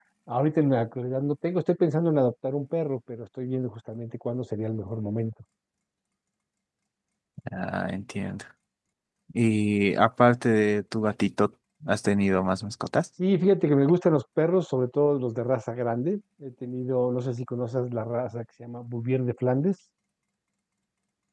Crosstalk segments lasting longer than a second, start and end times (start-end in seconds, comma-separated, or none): none